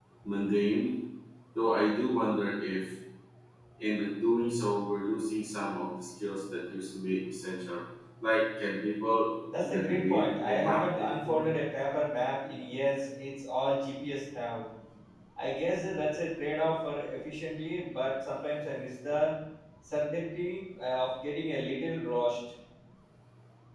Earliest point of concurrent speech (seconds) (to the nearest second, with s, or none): 9 s